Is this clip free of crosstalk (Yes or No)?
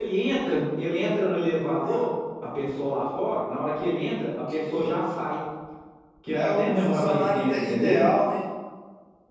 No